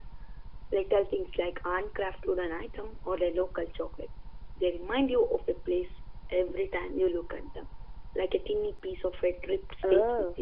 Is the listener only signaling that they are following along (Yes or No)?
No